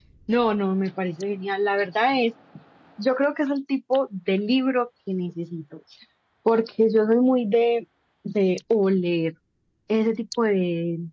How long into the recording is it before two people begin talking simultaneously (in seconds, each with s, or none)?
none